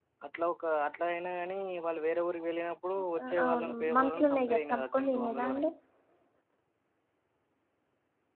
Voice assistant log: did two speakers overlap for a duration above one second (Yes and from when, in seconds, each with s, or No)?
Yes, from 3.2 s